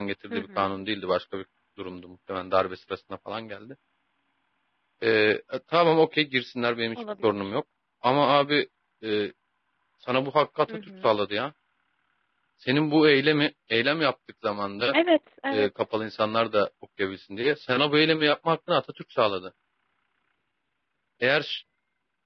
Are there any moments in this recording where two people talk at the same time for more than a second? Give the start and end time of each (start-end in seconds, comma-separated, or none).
none